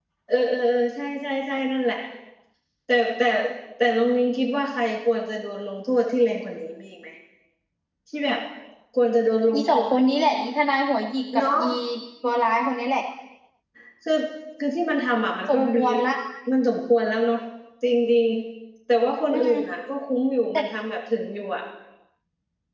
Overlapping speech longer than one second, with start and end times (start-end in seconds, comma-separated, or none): none